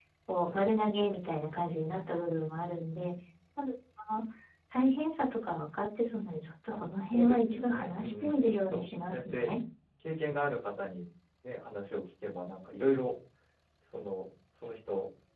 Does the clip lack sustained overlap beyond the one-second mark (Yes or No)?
No